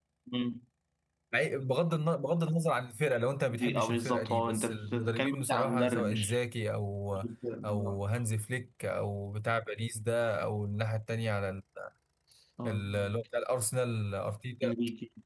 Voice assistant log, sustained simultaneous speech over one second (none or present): present